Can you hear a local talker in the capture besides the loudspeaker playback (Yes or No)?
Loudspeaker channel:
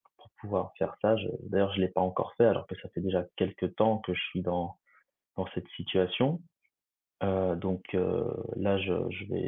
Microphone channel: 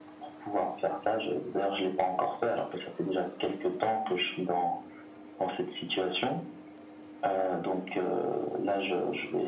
No